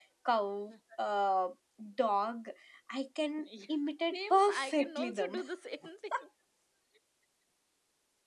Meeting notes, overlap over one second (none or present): present